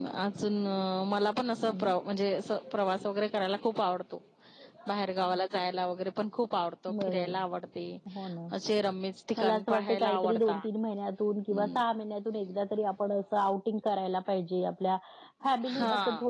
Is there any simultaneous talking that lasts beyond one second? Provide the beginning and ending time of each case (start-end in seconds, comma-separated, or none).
9.4-10.7